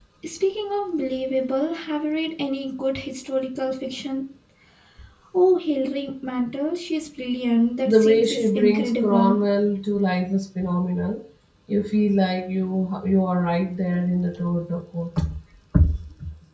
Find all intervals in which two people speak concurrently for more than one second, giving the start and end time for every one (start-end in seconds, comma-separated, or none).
7.9-9.4